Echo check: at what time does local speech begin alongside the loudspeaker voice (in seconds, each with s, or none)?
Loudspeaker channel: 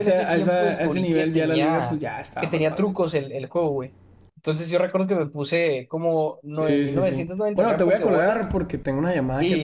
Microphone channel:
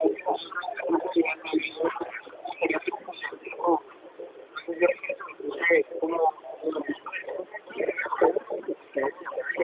none